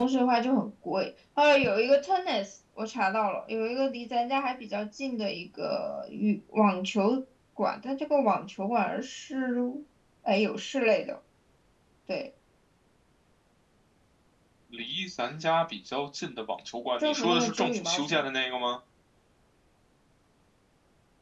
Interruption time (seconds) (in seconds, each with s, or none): 17.0 s